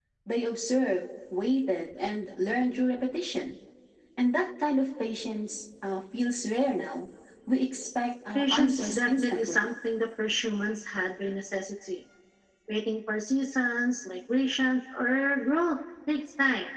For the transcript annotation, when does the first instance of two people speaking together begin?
8.3 s

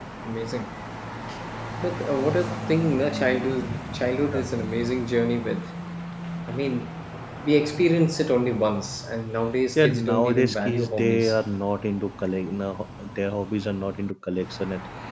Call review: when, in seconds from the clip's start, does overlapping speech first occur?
9.8 s

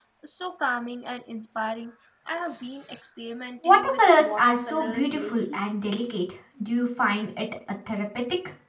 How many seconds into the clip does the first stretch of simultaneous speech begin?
3.6 s

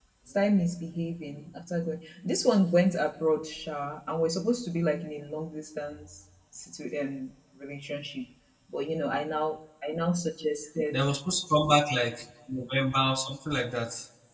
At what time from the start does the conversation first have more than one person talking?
none

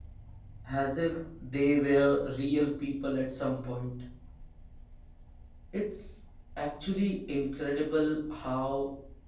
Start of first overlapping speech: none

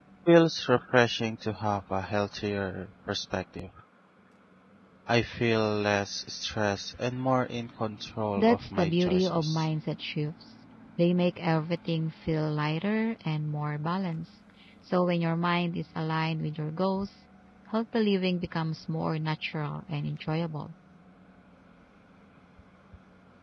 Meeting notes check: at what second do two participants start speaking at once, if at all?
8.4 s

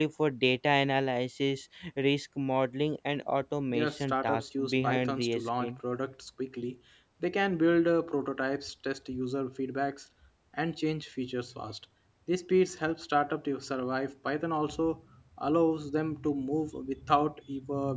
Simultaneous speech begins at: 3.7 s

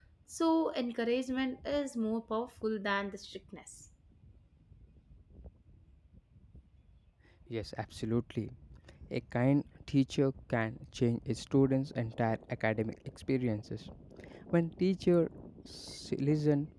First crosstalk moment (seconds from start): none

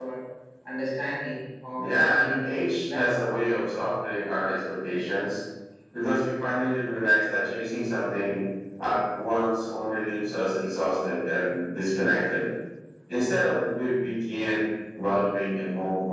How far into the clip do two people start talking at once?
1.8 s

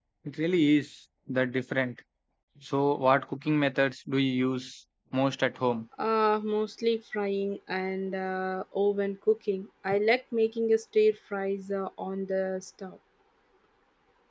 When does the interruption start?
none

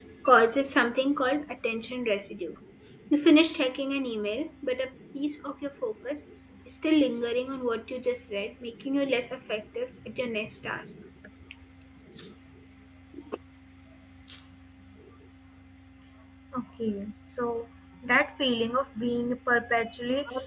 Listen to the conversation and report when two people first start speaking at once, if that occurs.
none

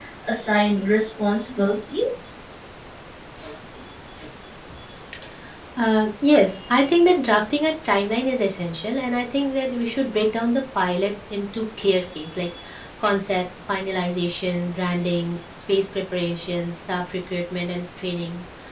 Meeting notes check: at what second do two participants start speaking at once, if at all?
none

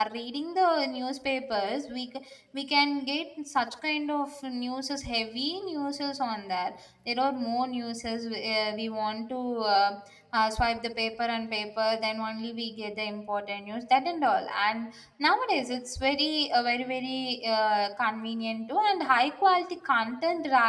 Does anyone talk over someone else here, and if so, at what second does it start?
none

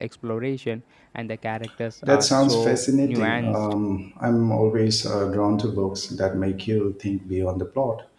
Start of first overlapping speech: 2.0 s

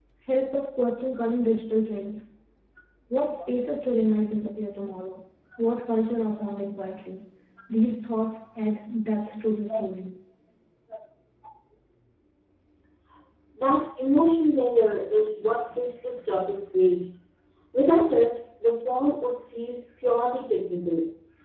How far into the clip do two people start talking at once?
none

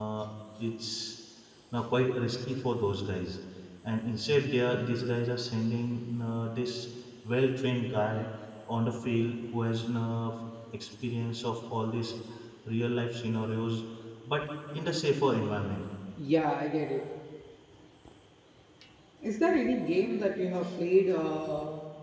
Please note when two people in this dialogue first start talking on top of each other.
none

